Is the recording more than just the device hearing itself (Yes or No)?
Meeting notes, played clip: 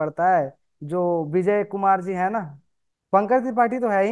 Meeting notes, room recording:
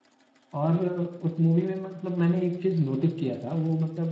Yes